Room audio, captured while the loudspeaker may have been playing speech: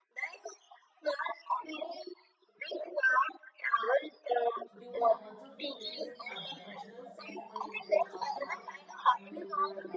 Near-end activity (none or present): present